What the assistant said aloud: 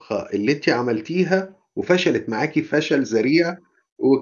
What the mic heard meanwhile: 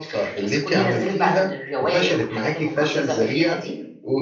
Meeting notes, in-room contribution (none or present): present